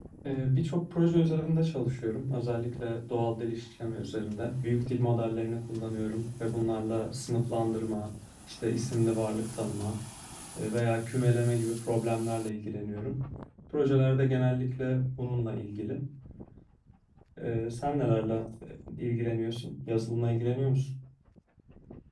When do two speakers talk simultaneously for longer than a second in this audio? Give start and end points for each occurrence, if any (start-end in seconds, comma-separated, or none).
none